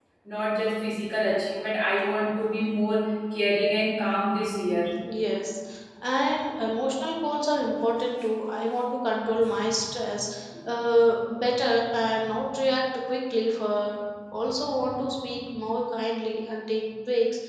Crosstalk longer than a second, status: none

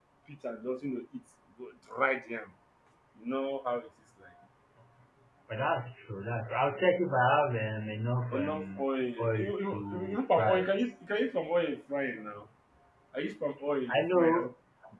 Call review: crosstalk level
present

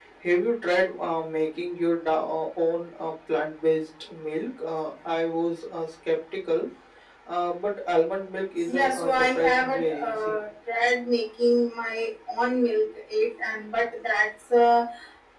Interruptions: present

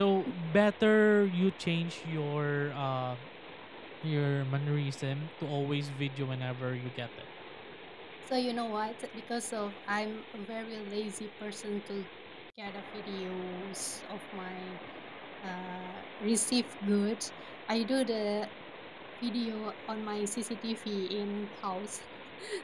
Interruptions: none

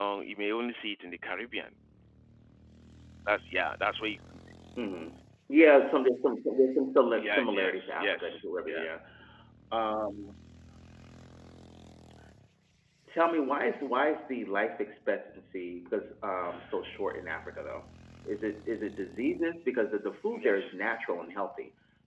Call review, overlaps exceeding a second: present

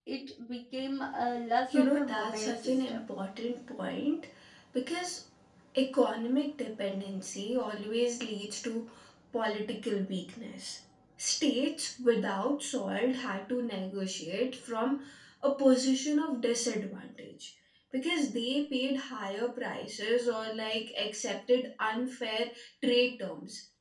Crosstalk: present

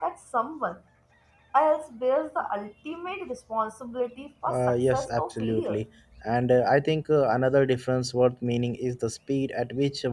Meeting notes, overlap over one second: present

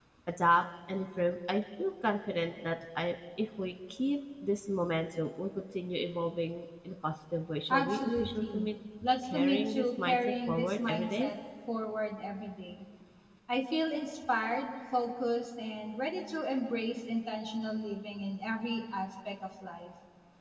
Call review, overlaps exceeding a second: present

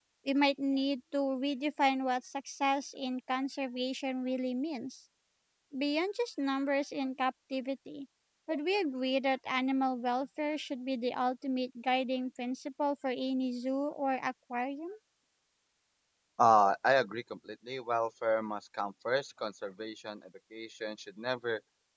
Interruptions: none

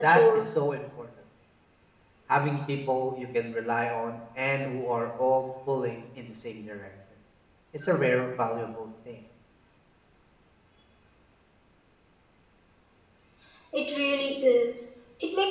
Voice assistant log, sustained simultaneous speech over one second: none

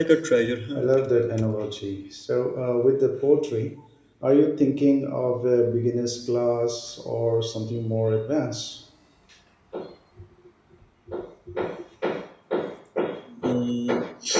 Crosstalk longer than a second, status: none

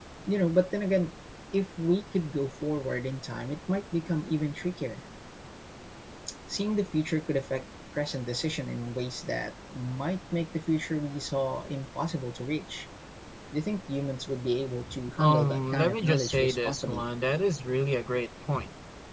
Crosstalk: present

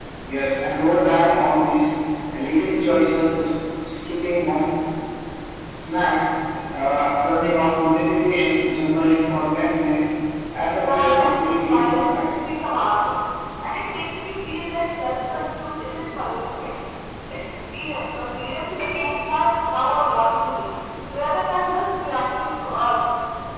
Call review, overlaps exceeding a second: present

